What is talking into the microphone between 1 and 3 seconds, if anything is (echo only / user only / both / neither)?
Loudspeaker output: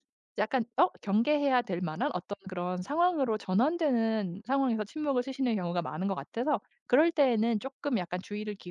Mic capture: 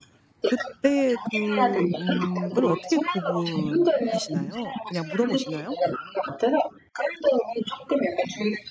both